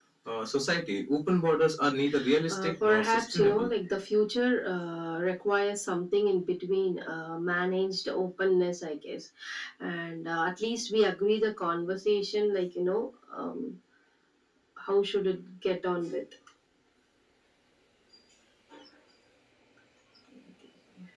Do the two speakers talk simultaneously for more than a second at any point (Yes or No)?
Yes